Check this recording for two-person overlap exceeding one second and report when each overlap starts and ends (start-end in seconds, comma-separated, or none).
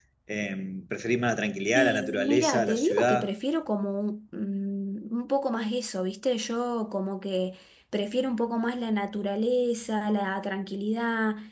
1.8-3.3